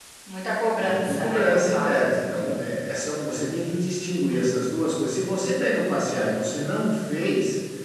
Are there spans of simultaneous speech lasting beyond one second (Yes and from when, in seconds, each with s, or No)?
Yes, from 0.8 s